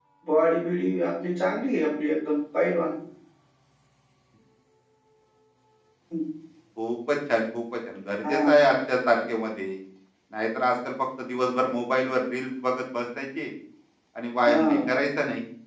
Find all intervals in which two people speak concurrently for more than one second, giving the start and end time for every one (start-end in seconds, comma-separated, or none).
none